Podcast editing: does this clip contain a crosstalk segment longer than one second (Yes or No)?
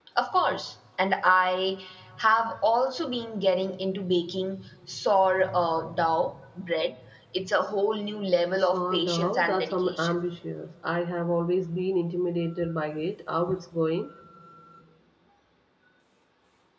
Yes